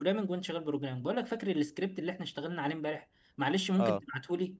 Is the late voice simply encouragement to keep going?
Yes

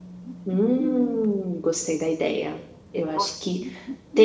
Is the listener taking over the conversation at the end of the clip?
No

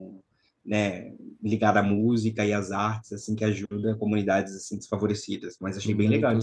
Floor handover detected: Yes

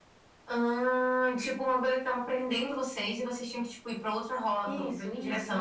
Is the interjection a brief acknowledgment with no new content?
No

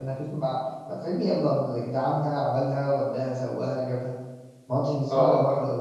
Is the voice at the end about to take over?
Yes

